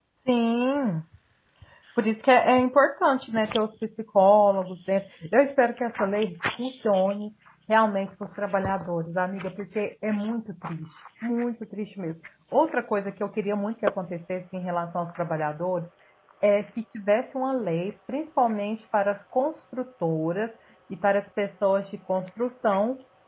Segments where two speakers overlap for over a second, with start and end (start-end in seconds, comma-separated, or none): none